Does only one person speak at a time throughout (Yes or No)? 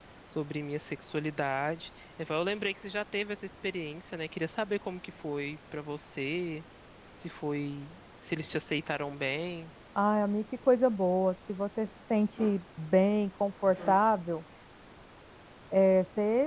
Yes